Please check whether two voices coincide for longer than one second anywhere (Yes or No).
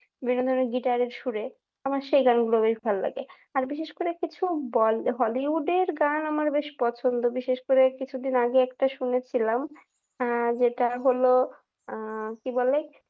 No